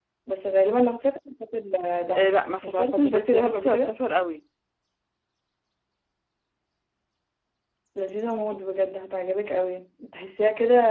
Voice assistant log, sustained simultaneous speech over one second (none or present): present